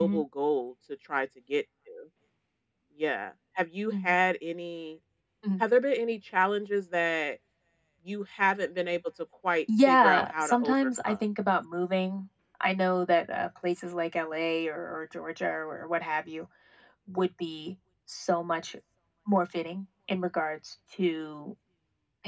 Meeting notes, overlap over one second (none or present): present